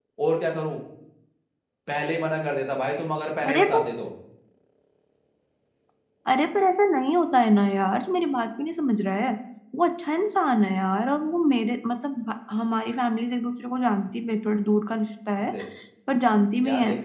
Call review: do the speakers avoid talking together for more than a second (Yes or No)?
Yes